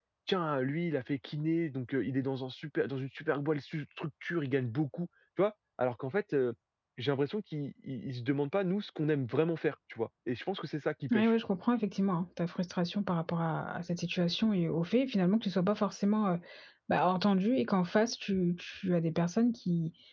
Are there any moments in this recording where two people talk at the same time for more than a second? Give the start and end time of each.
none

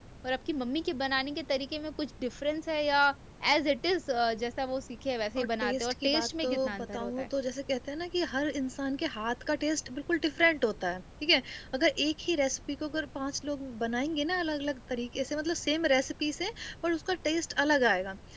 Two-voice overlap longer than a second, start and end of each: 5.4-7.3

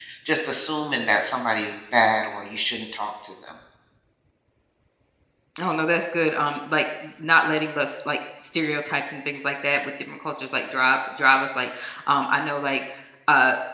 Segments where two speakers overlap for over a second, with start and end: none

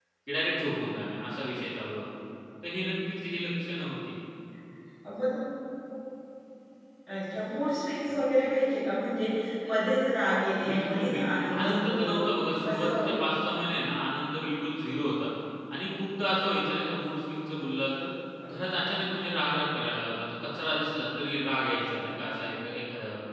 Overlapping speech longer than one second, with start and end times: 10.7-12.1

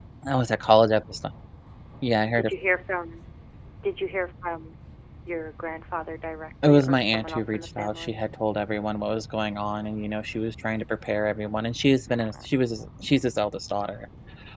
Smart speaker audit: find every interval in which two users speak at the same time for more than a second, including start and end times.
6.7-8.2

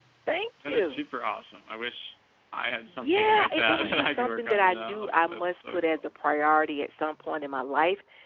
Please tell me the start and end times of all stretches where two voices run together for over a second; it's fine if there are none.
2.9-6.0

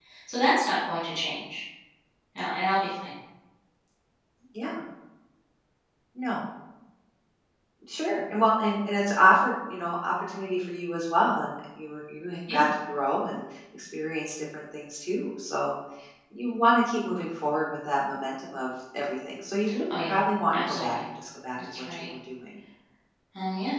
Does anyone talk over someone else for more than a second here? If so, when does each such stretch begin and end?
none

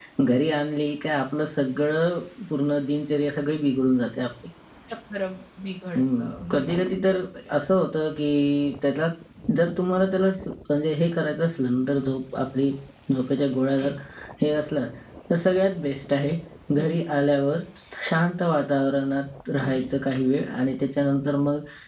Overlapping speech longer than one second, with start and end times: 6.0-7.6

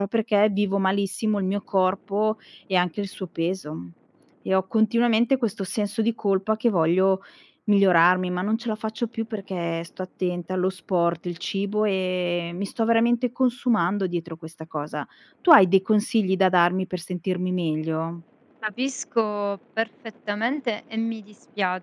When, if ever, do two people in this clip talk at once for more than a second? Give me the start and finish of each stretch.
none

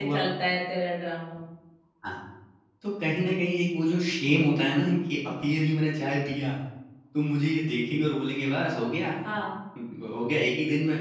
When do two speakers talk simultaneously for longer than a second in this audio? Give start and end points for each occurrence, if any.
none

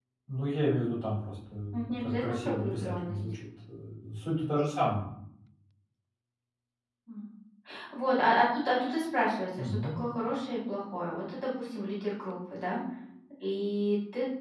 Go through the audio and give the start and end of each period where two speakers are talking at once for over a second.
1.7-3.1

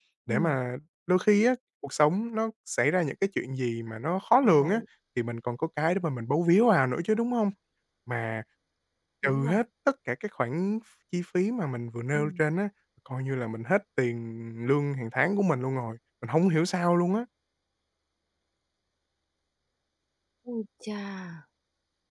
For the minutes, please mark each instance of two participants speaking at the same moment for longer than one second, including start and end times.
none

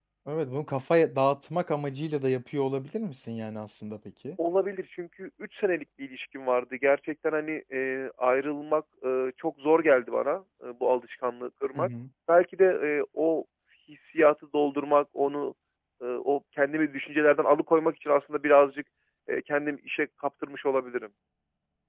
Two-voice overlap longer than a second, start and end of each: none

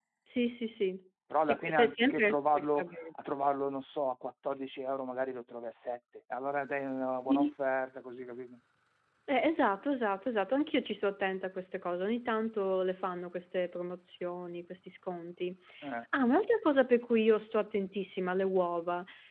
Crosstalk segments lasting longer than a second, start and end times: 1.4-2.9

